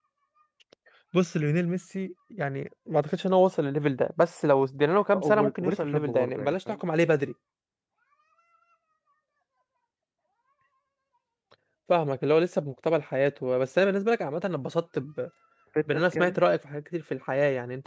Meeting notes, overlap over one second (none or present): present